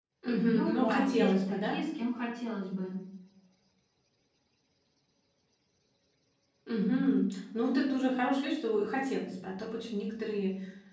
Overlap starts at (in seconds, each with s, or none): 0.5 s